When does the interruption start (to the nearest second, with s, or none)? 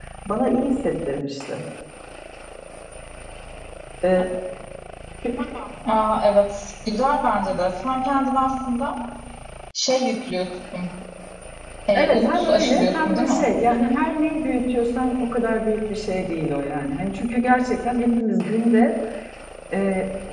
12 s